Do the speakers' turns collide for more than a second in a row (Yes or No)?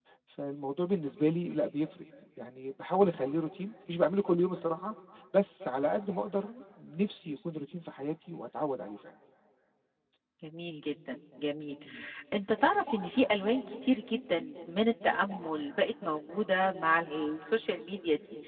No